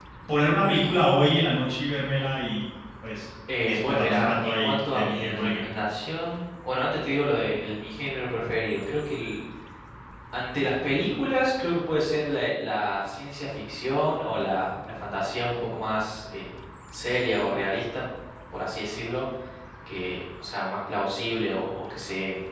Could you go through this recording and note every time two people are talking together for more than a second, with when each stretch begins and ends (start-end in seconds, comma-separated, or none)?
3.7-5.7